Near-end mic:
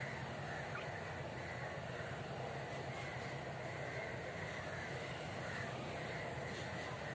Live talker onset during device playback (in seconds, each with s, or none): none